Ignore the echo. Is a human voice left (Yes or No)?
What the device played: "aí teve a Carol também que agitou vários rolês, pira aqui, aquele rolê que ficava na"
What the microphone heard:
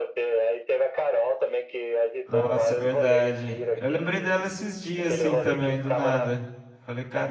Yes